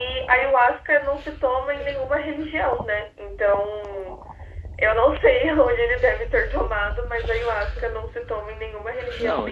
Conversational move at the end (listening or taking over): listening